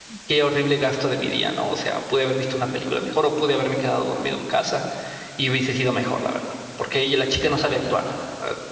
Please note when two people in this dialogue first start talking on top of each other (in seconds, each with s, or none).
none